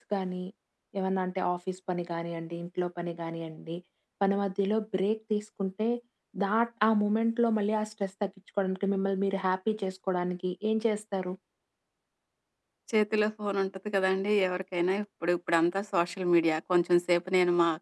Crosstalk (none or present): none